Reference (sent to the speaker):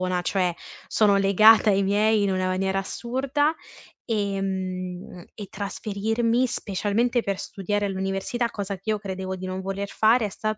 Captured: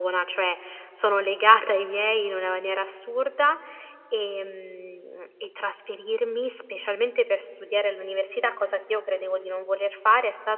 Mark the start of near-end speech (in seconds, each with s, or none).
none